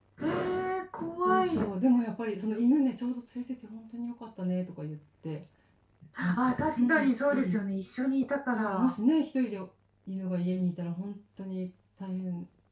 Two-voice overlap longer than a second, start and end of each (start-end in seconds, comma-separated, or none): 6.2-7.6